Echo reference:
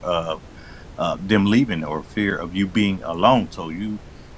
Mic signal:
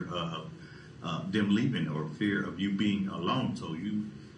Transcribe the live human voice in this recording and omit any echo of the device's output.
none

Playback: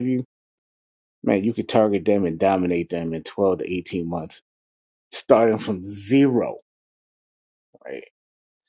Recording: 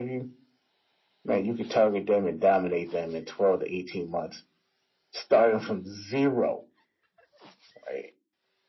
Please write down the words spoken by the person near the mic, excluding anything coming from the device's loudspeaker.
none

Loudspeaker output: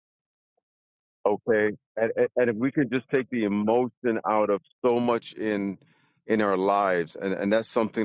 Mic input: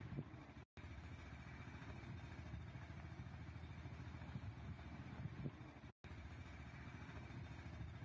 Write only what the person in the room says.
none

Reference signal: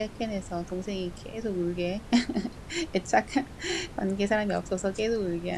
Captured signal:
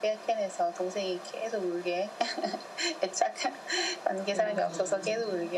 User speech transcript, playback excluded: 밖에 나가서 자면

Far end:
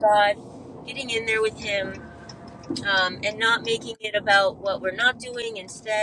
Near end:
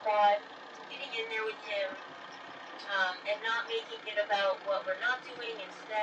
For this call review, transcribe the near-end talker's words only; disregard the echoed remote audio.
none

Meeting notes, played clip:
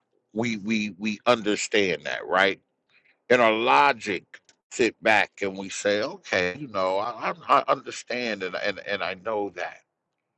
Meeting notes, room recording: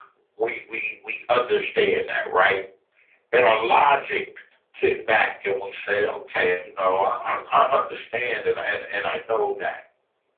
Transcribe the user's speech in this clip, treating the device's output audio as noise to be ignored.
none

